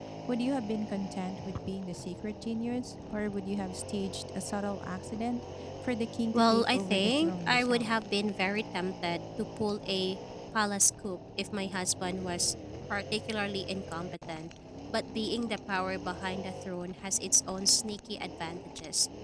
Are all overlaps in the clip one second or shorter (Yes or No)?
No